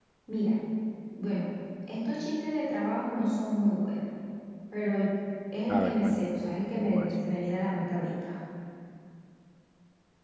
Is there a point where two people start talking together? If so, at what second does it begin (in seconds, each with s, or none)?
5.7 s